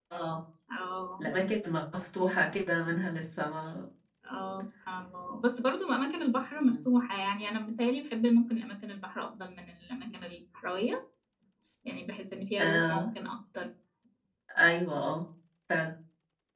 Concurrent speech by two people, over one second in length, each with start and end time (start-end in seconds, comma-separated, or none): none